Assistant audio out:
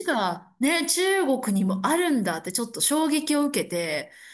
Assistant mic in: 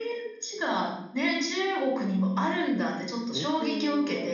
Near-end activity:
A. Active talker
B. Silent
A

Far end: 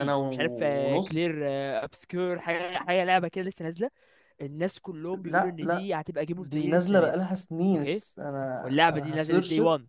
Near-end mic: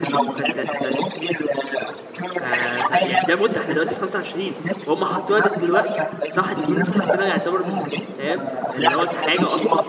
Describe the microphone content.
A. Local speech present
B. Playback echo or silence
A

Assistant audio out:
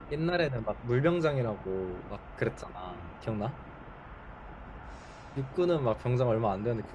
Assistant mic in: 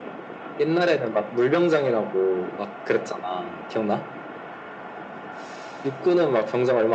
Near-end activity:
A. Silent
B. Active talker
A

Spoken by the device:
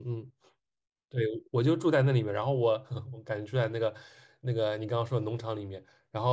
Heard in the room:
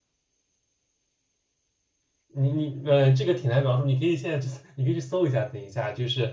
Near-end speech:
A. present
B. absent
A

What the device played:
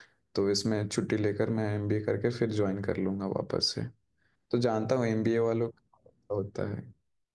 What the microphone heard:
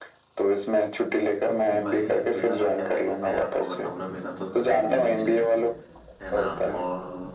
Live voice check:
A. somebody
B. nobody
A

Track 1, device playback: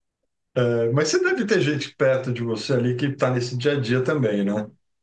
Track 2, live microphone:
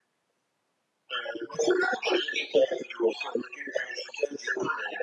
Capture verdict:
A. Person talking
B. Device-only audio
B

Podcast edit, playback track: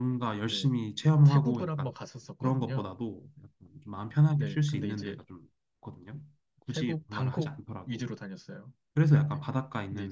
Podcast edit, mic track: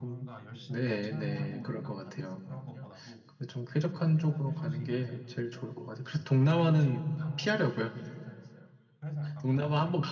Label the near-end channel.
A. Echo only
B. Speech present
B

